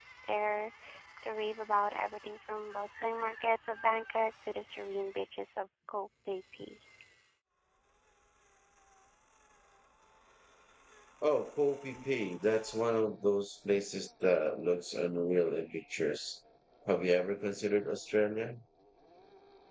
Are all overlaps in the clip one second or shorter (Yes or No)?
Yes